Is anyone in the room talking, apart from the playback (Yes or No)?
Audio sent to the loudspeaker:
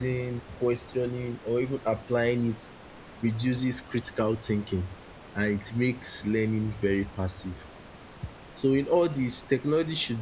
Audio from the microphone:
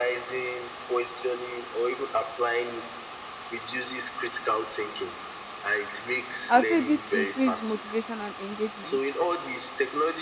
Yes